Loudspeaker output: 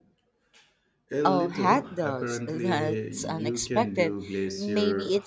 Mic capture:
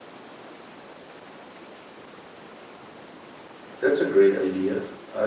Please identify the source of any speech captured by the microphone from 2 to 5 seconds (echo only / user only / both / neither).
user only